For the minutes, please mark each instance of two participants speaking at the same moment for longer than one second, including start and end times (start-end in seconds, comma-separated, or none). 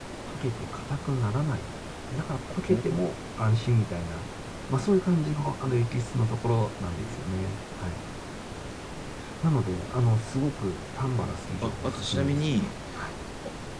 11.2-12.7